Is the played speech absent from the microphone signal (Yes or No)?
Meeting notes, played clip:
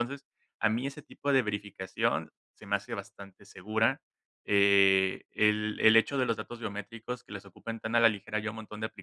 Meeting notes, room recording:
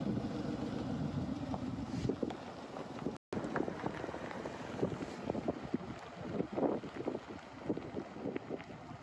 Yes